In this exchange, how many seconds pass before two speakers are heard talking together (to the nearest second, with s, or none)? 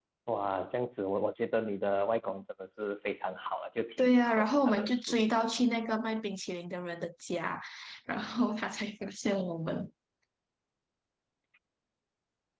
4 s